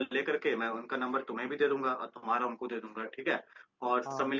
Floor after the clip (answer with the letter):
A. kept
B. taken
A